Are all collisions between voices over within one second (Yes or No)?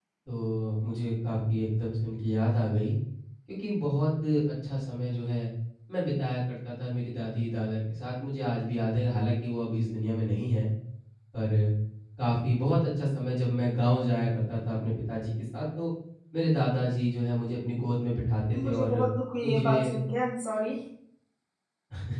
Yes